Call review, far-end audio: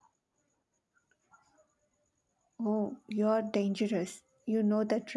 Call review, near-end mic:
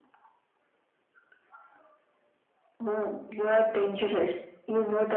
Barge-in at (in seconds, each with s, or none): none